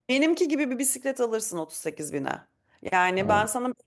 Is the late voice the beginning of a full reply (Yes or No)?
No